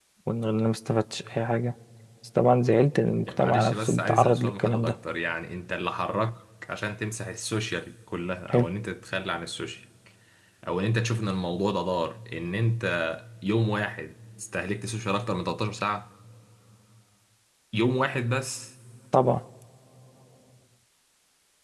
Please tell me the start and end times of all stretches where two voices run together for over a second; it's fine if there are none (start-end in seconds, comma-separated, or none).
3.2-4.9